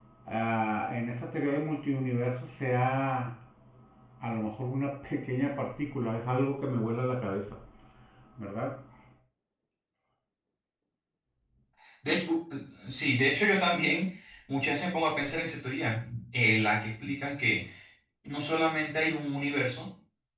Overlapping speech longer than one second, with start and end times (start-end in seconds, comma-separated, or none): none